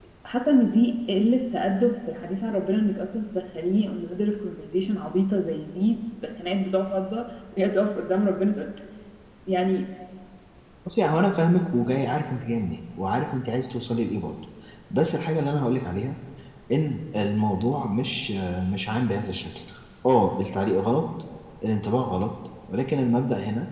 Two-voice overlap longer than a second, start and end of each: none

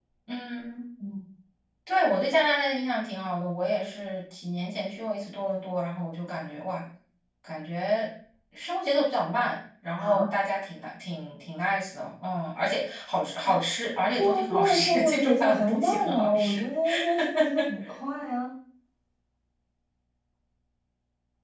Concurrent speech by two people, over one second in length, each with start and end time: 14.2-16.6

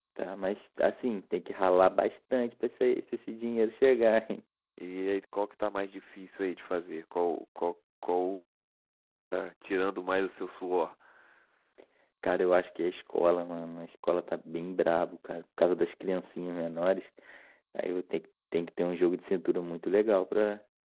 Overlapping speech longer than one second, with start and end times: none

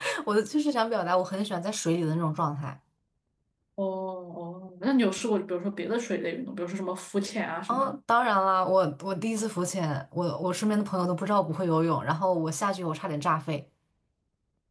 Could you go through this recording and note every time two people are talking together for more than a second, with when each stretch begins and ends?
none

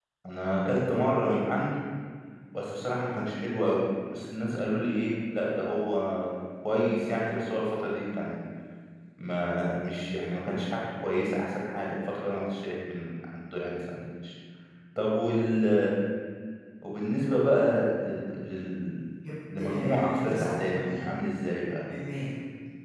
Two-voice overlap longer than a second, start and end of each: 19.6-21.1

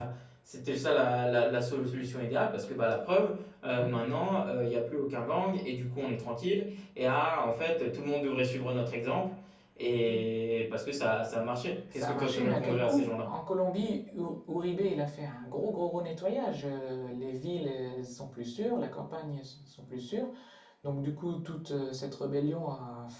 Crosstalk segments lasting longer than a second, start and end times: 11.9-13.3

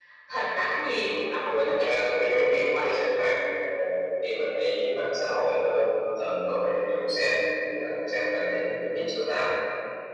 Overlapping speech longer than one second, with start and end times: 1.5-3.0

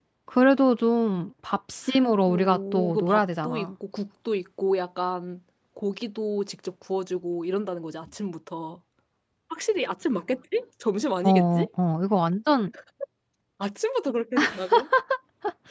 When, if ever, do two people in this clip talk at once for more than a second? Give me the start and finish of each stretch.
2.3-3.7

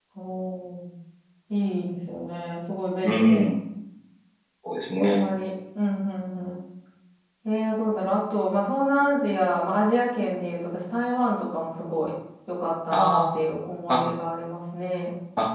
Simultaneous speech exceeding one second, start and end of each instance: none

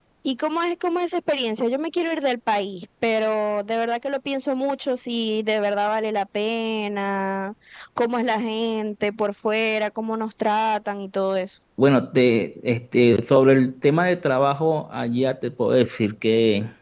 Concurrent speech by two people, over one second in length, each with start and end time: none

